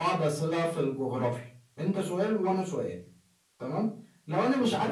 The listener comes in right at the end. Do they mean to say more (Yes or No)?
No